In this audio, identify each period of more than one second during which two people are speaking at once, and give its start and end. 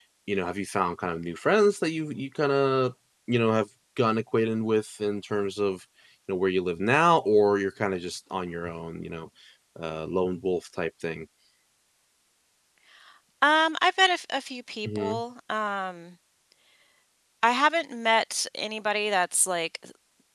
none

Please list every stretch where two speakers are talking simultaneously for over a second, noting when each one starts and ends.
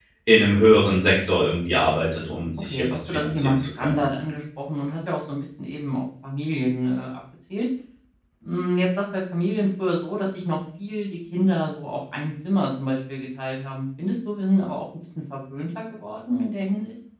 2.6-4.0

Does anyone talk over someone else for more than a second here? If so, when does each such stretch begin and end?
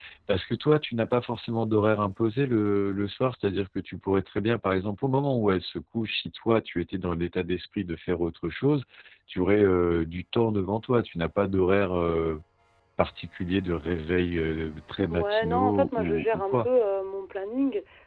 15.1-16.7

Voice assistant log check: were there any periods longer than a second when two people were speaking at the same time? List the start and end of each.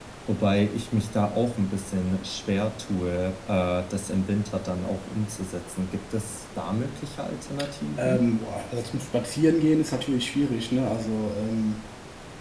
none

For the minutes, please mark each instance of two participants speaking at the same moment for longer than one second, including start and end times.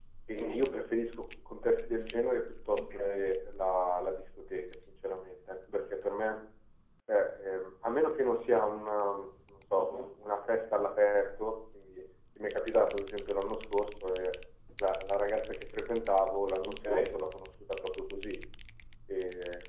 none

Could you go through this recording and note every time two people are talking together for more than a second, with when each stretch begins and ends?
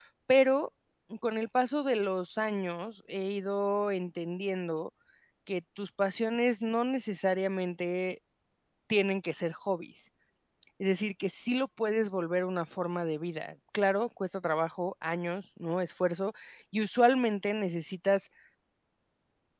none

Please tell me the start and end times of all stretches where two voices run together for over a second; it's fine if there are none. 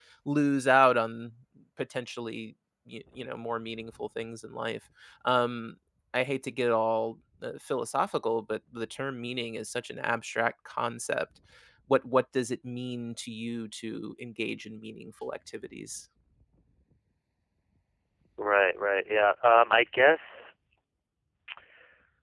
none

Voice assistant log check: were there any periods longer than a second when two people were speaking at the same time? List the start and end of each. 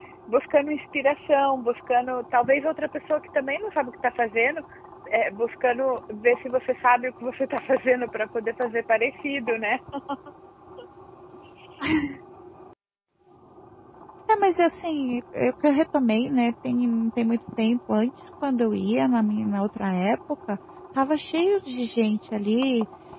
none

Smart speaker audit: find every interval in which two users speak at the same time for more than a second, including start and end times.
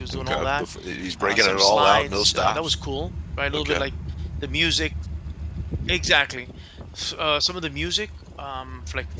1.2-2.8

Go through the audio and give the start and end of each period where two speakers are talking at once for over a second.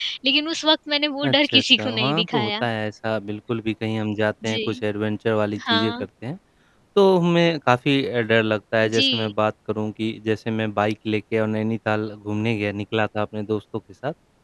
1.2-2.6

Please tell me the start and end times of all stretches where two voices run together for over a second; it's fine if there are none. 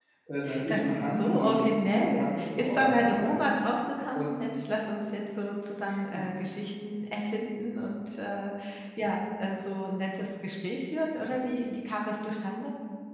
0.7-3.5

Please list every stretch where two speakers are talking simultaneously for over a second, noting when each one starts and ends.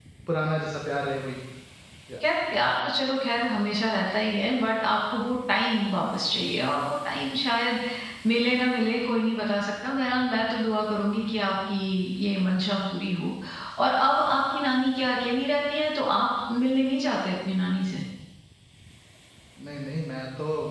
none

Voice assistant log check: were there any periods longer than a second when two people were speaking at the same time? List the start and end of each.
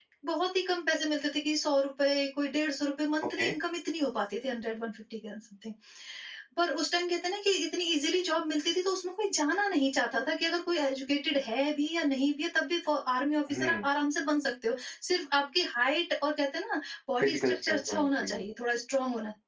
17.2-18.4

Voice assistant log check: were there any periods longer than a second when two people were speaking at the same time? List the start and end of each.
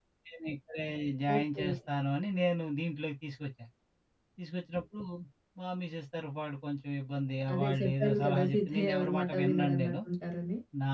7.5-9.9

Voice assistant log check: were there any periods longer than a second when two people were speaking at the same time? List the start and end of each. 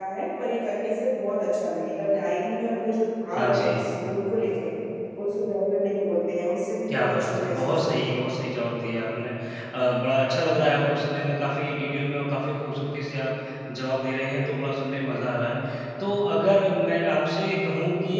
6.9-8.2

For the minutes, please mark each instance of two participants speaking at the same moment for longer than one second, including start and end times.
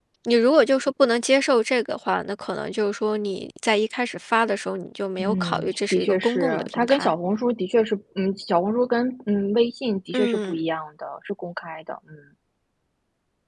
5.2-7.1

